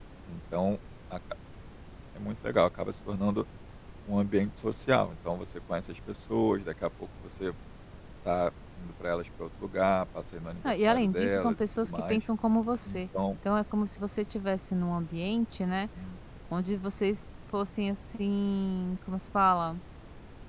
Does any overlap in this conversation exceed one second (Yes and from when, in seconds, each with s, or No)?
Yes, from 10.6 s